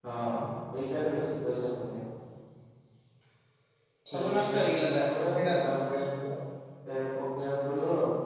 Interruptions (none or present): present